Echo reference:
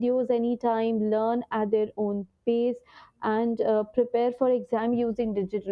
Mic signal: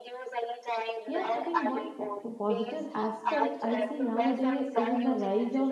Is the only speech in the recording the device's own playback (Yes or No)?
No